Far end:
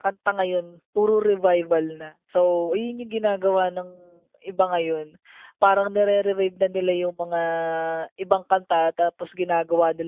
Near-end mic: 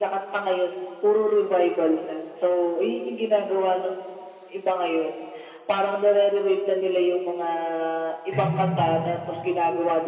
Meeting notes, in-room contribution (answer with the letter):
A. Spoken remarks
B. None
A